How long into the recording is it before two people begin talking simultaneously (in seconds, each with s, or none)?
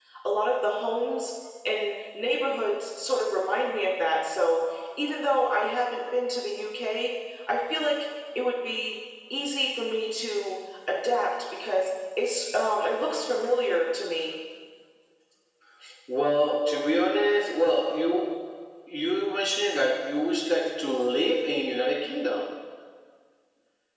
none